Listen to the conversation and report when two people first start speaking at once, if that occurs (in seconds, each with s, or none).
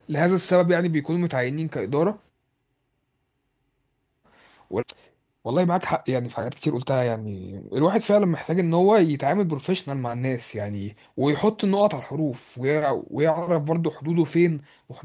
none